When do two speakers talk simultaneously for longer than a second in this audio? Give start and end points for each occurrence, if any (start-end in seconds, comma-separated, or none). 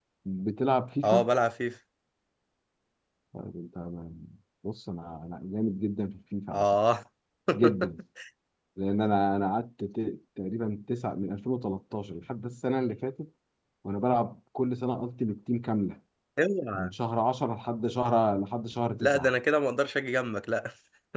none